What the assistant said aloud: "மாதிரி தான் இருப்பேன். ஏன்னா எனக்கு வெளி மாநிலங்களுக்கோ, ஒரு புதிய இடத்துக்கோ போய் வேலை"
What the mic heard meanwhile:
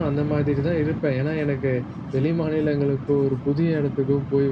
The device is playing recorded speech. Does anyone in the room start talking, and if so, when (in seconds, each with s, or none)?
none